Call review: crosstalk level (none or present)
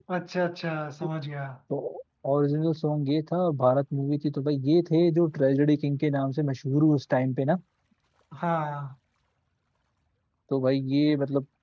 none